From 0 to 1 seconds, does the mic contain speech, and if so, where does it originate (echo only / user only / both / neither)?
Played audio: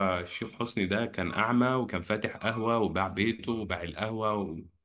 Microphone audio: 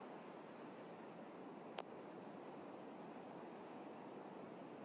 neither